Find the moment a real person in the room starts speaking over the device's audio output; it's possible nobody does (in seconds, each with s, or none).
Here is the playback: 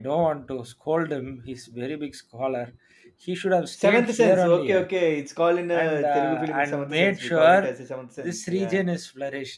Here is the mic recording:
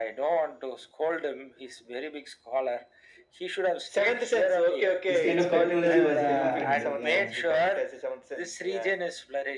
5.1 s